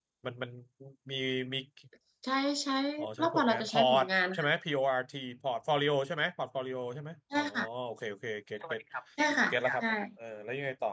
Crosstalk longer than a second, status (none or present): present